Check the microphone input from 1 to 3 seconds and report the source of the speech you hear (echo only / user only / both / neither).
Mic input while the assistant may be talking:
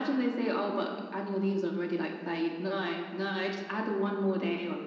echo only